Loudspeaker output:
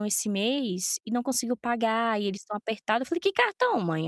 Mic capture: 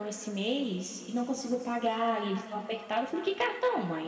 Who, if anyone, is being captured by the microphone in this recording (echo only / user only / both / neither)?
echo only